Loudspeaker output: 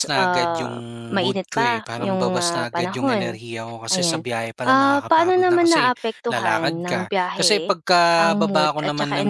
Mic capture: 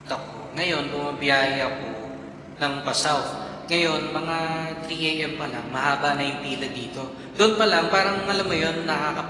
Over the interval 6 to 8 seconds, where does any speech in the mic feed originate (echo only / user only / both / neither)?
user only